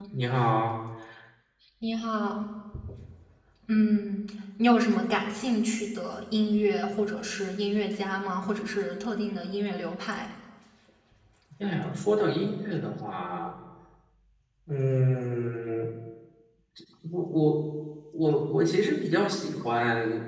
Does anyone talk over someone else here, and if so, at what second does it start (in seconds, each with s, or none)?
none